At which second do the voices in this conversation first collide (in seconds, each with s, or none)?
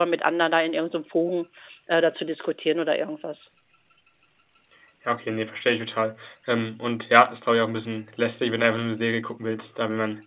none